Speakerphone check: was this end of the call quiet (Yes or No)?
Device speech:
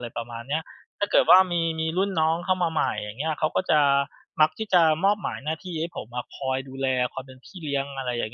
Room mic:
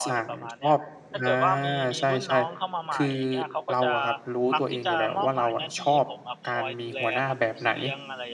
No